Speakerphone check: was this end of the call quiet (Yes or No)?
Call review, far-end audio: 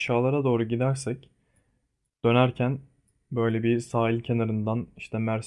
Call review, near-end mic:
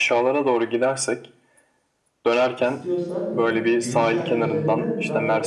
No